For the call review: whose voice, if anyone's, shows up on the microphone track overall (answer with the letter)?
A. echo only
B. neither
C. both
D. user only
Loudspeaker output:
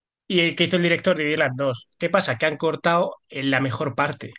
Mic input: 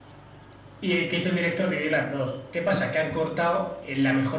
A